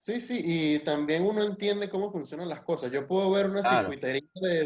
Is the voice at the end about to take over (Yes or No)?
No